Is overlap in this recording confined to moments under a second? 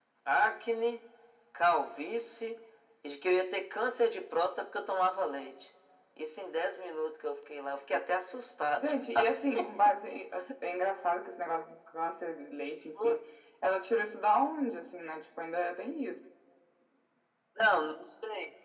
Yes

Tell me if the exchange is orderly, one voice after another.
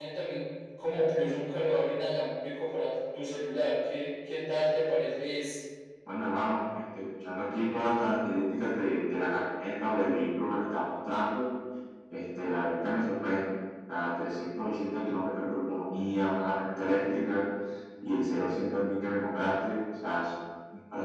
Yes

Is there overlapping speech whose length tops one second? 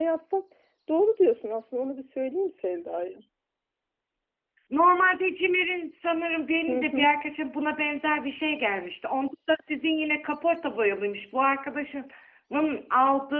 No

